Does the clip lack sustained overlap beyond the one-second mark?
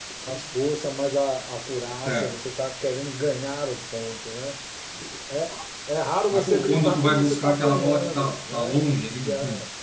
No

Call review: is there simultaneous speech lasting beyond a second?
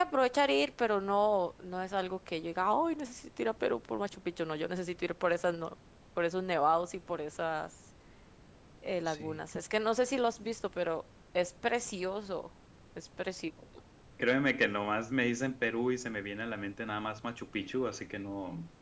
No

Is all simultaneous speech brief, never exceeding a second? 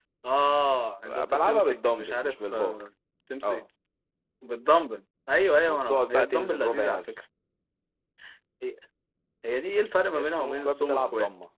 No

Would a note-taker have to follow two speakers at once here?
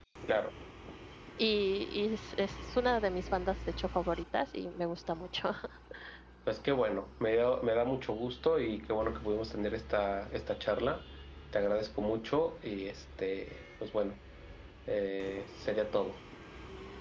No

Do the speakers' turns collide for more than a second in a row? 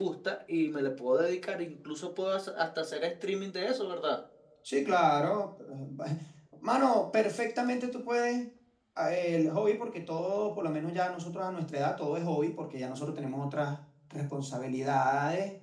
No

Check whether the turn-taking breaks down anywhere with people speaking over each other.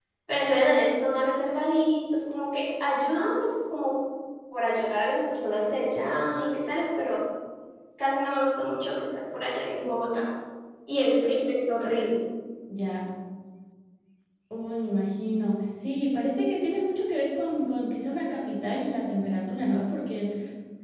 No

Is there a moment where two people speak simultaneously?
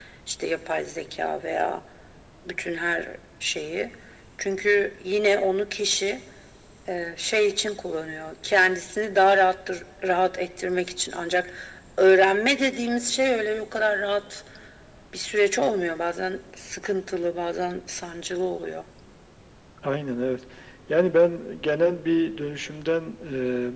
No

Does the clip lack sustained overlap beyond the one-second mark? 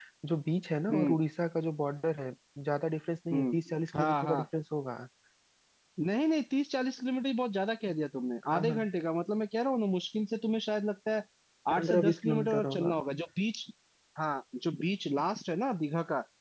No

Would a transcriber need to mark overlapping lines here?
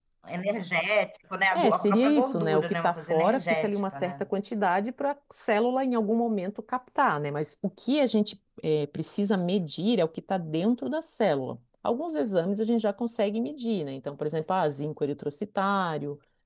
Yes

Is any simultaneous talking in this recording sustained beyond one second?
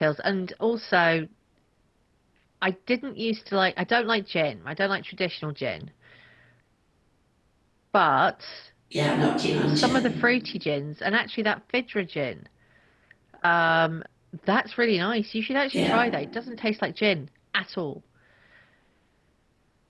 No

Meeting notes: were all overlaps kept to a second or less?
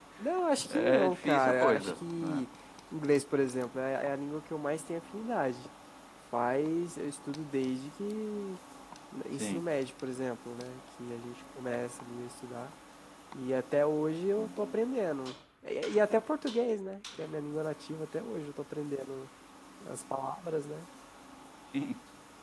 No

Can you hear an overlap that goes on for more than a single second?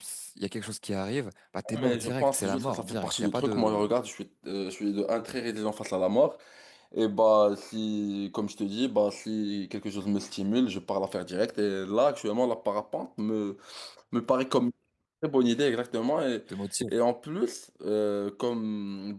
Yes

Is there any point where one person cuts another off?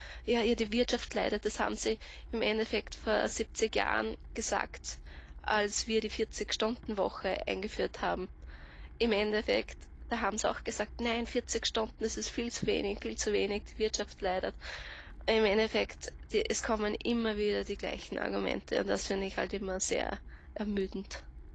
No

